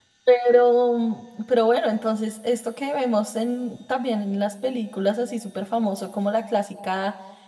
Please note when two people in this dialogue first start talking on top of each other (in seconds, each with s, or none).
none